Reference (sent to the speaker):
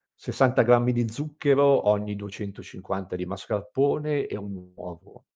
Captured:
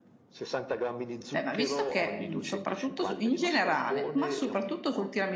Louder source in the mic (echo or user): user